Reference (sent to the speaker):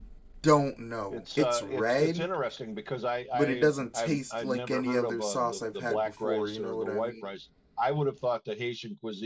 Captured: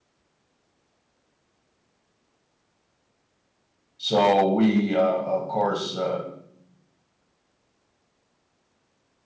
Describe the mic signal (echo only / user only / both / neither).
user only